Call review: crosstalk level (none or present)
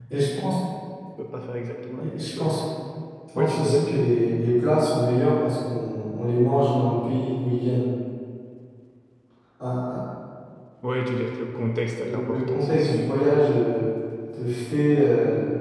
present